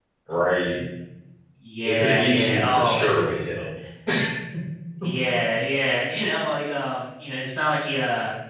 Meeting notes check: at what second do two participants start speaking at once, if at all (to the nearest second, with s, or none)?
2 s